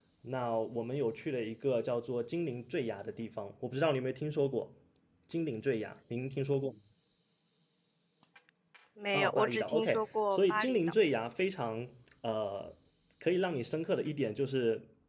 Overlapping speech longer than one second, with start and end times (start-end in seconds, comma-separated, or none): 9.1-10.8